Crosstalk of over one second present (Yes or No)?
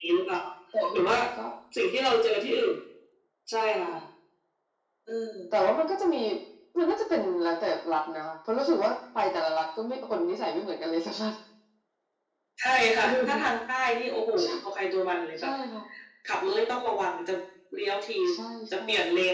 No